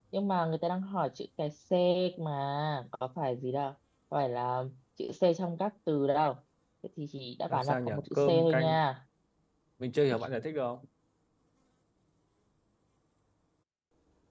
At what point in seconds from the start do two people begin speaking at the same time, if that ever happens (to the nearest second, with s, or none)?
7 s